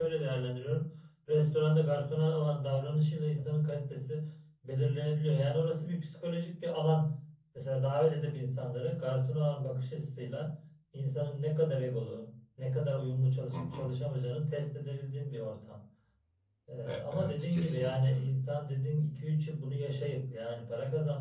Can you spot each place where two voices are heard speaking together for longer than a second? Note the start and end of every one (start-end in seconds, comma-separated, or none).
16.8-18.1